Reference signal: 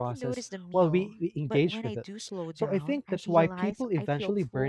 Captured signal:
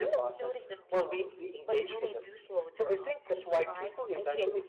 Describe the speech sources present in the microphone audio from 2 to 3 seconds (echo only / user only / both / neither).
echo only